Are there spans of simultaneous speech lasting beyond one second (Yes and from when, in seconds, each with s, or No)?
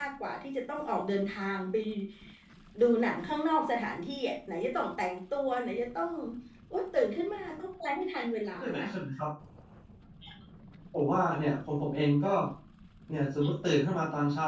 No